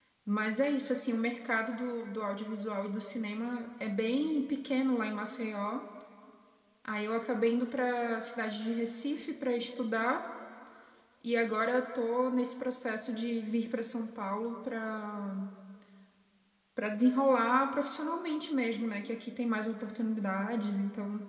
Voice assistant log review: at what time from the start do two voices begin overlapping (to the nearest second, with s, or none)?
none